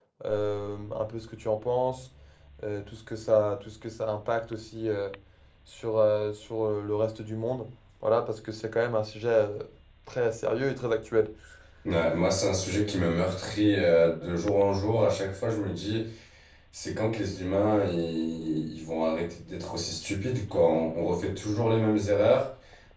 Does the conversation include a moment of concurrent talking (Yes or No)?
No